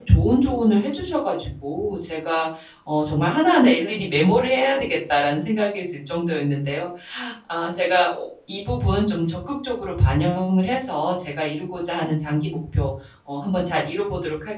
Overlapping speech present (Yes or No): No